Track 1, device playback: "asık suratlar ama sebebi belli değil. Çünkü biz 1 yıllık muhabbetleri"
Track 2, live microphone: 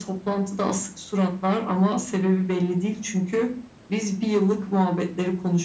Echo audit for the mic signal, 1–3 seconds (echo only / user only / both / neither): echo only